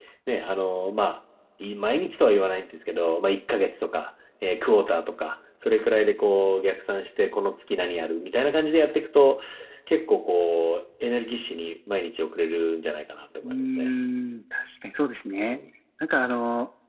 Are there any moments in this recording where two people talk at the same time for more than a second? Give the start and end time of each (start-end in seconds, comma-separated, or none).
none